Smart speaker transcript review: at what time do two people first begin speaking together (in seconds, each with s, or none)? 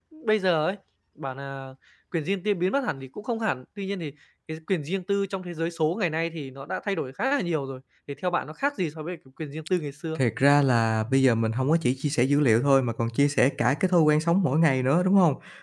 none